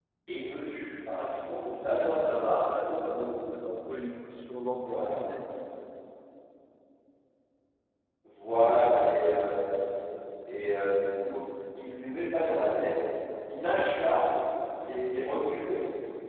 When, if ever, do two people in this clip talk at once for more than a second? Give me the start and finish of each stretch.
2.1-3.4

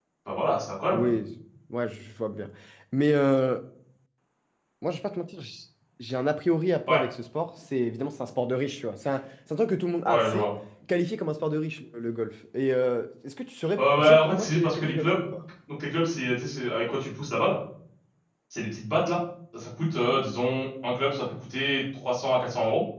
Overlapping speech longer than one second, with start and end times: 13.8-15.2

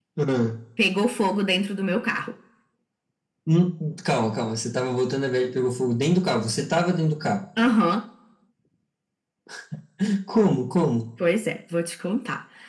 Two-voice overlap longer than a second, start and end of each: none

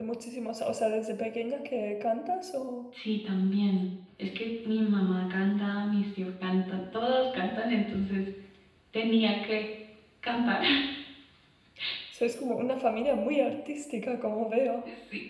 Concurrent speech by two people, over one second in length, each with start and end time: none

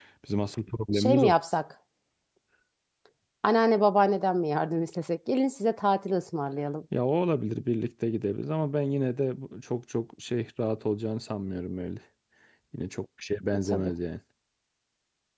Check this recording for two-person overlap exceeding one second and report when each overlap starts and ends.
none

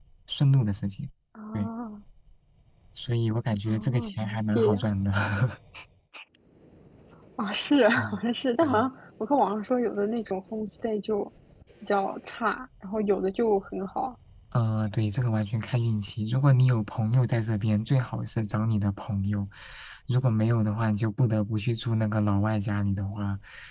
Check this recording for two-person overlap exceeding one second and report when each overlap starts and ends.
3.6-4.9

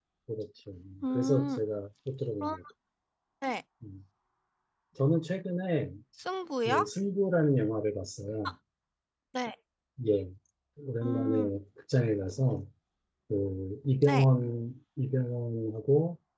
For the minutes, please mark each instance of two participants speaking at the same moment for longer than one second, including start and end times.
none

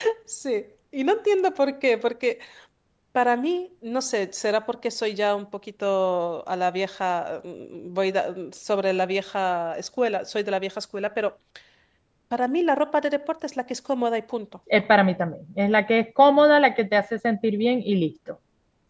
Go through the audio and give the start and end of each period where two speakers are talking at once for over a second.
none

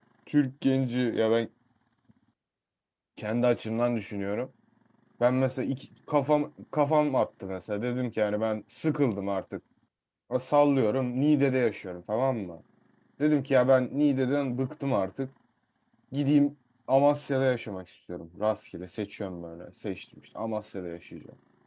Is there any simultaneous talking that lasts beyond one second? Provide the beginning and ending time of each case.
none

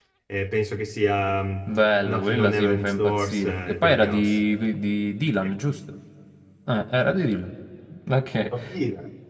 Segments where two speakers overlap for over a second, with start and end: 2.0-4.4

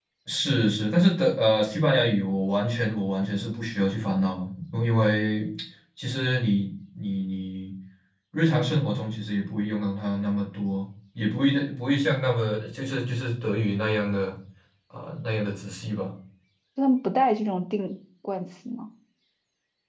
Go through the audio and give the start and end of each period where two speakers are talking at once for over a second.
none

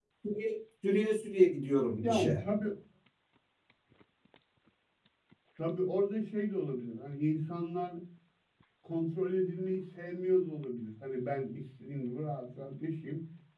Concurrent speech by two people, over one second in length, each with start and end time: none

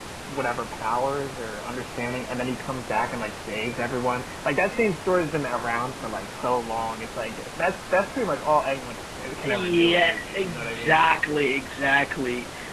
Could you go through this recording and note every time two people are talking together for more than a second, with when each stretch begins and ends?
9.4-11.0

